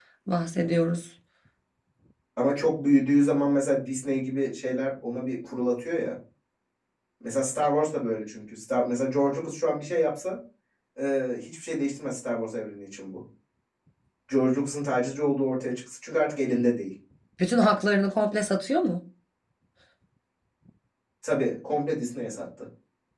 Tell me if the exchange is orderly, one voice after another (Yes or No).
Yes